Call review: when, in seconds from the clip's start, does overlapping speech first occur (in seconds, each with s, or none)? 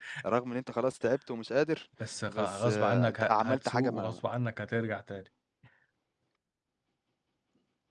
2.3 s